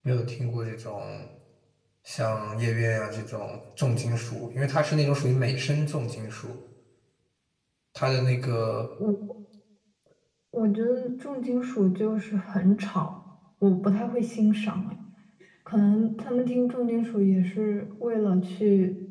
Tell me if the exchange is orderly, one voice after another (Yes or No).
Yes